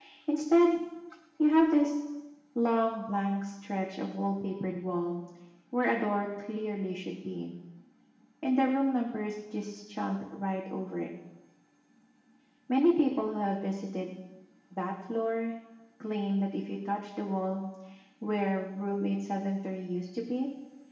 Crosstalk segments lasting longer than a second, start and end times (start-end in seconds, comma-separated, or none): none